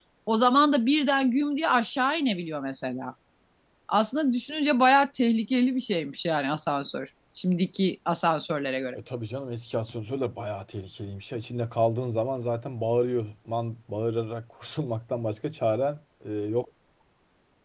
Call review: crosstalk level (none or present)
none